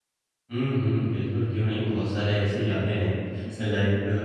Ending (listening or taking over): listening